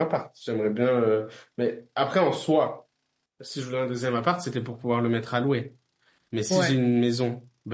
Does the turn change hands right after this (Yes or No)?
No